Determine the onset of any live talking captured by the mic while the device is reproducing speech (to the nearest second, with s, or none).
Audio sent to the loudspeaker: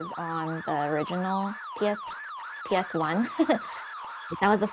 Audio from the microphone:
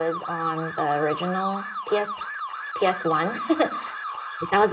none